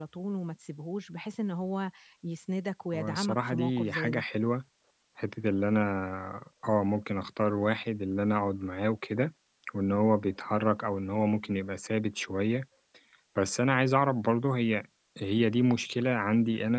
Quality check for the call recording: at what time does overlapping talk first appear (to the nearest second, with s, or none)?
3 s